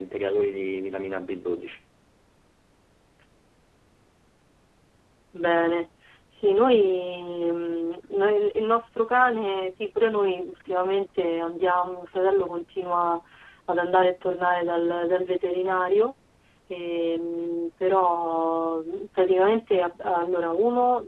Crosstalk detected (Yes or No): No